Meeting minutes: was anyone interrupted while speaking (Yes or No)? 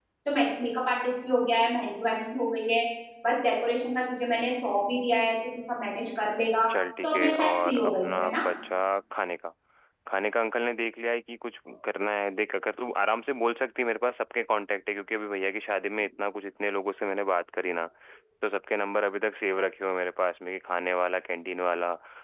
Yes